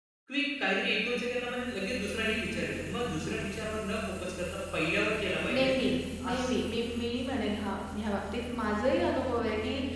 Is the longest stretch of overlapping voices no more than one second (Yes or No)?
Yes